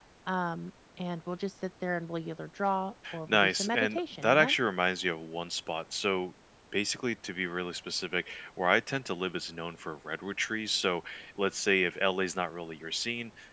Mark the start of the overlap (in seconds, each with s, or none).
3.0 s